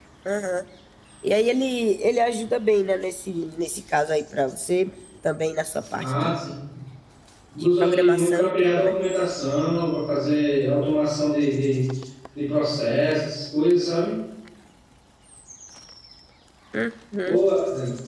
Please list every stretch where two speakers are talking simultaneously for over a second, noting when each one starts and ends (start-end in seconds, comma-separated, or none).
7.6-8.9